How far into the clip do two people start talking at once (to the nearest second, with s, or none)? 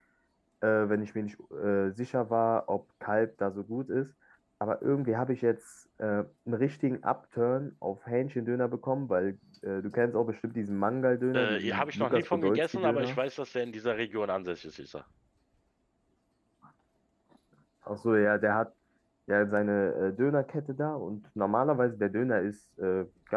11 s